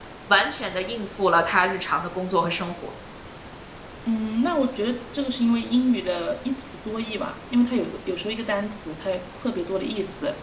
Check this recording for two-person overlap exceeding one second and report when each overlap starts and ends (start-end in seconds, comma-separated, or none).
none